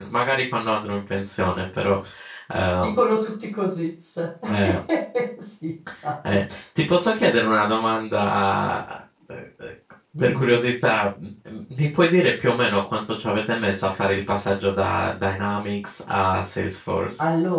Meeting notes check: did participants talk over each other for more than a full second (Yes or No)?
No